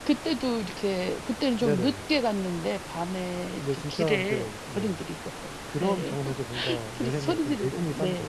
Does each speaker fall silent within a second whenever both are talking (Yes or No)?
No